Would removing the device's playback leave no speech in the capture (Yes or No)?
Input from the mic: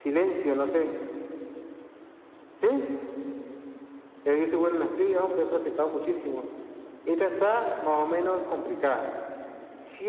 Yes